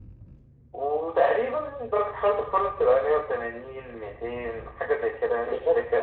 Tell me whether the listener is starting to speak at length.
Yes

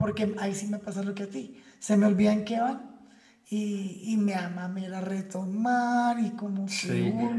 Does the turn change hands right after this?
Yes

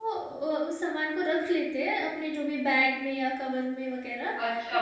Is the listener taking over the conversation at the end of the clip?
Yes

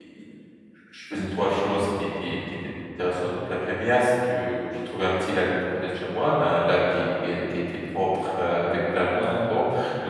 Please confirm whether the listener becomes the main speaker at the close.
No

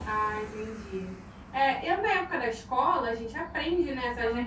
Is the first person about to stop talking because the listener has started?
No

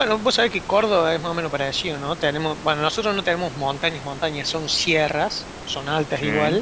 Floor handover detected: No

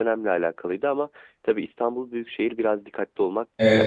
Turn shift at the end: Yes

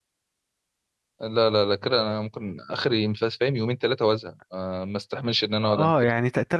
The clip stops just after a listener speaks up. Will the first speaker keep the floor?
No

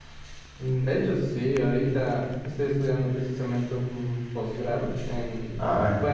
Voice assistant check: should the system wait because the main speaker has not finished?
Yes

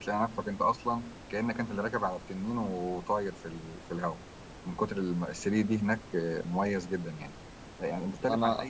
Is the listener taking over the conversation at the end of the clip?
No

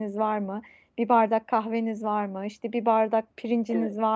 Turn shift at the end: No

